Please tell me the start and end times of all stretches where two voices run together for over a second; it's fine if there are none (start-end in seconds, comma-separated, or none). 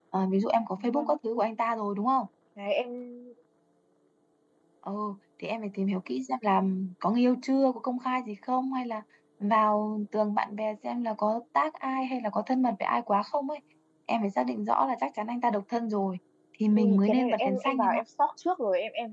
16.8-18.0